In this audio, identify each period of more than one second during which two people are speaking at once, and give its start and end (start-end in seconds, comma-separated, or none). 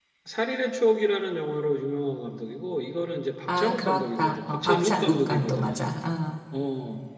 3.5-5.9